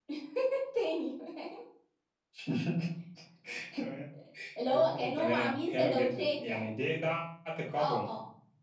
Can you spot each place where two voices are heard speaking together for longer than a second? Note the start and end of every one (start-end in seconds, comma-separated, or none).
4.7-6.7